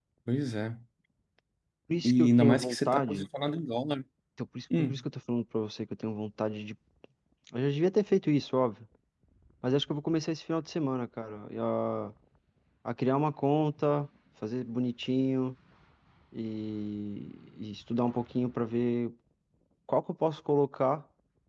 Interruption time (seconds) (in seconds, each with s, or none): 2.0 s